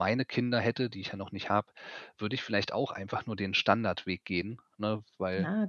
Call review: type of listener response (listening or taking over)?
taking over